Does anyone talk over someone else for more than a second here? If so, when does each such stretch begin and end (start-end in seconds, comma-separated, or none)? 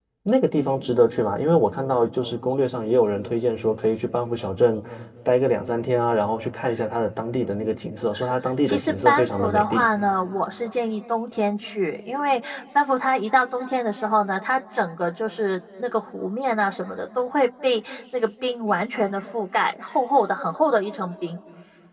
8.6-9.9